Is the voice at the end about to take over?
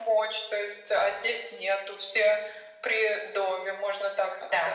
Yes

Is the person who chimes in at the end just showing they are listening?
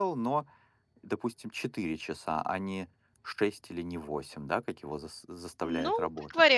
No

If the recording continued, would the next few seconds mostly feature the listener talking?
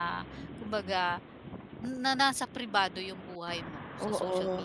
Yes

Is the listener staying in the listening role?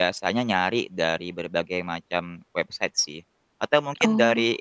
Yes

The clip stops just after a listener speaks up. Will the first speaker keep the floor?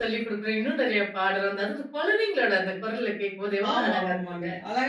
No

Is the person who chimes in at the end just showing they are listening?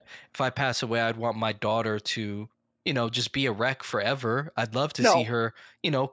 Yes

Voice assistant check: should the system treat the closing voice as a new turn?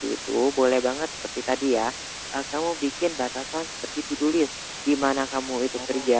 No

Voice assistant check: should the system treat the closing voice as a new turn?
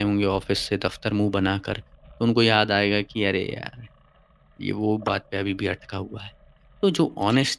No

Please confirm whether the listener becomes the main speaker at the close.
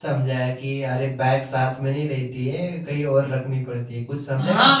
Yes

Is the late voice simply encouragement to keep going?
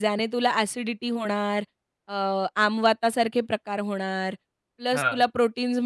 Yes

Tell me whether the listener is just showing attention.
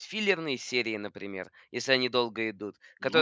Yes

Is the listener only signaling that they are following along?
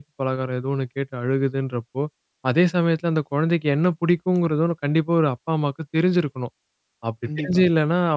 Yes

